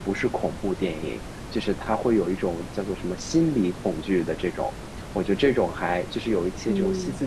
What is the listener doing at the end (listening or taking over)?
listening